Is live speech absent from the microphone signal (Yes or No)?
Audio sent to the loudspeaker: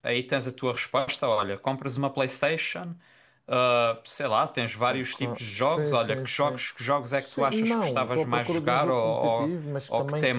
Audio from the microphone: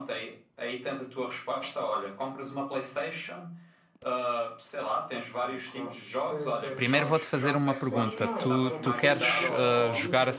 No